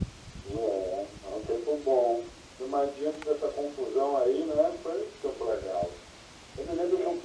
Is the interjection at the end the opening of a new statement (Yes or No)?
No